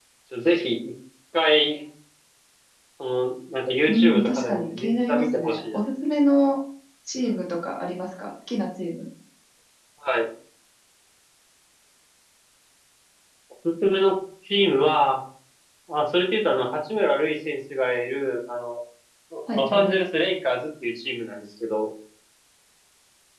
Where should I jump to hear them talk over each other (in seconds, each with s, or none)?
3.9 s